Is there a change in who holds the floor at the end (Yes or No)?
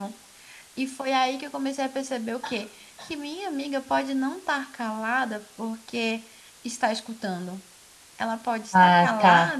No